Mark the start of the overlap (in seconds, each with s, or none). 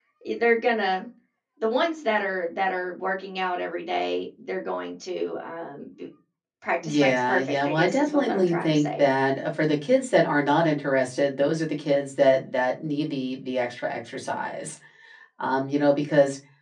6.8 s